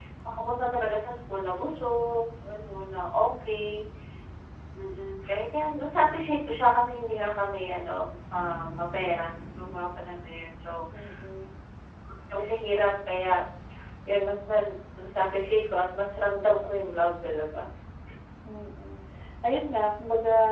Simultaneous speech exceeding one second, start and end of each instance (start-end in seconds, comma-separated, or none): none